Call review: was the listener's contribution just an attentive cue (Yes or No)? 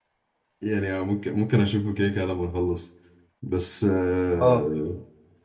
Yes